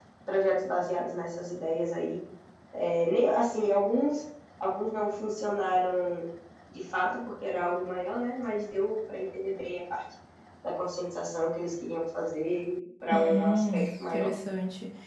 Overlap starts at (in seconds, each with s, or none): 13.1 s